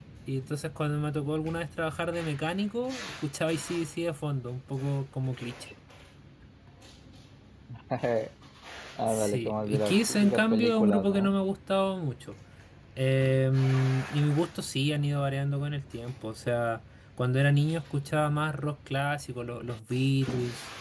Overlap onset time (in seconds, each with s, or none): 9.1 s